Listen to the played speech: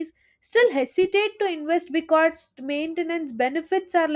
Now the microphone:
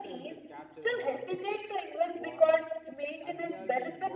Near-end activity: present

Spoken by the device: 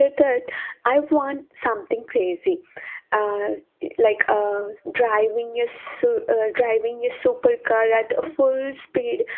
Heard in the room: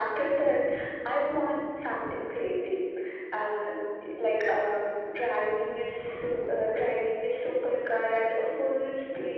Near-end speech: none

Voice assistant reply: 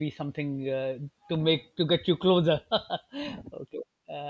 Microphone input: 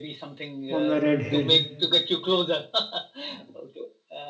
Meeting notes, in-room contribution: present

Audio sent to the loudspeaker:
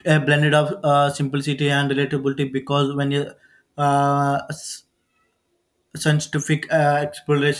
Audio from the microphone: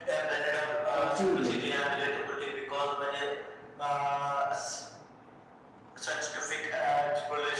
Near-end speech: present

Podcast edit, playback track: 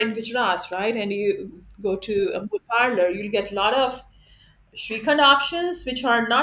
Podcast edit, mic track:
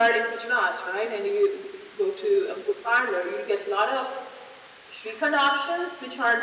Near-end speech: none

